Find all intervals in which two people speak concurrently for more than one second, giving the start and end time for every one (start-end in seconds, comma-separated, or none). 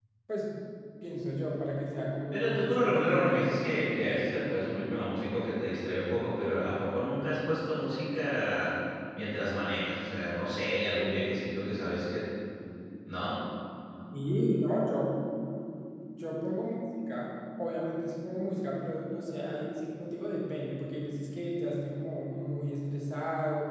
2.3-3.6